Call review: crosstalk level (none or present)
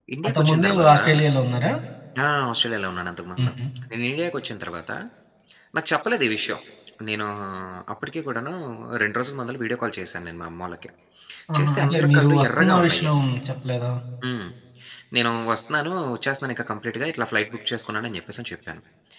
present